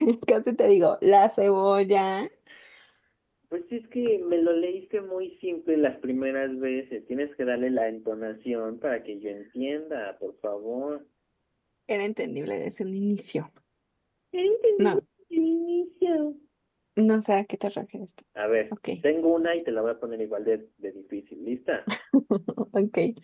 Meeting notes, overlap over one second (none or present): none